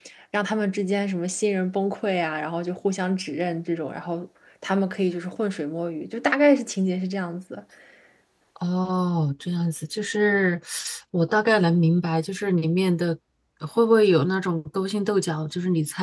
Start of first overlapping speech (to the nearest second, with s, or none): none